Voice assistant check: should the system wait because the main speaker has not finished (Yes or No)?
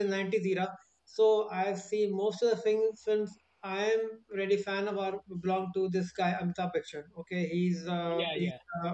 Yes